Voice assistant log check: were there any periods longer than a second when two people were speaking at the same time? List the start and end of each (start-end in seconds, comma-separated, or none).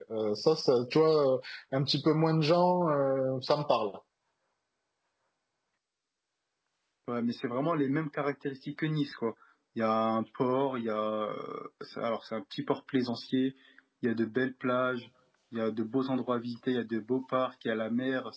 none